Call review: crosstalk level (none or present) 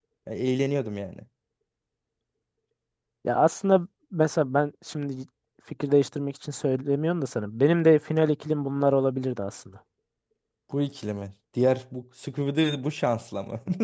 none